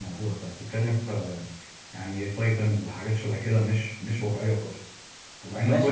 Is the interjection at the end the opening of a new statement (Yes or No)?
Yes